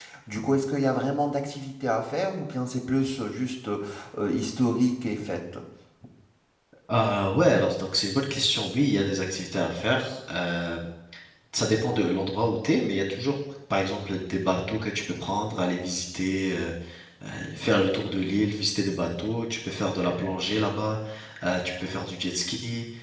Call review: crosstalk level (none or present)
none